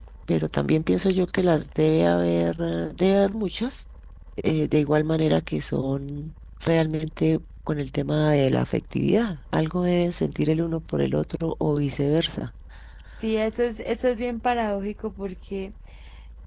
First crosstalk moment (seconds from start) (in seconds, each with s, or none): none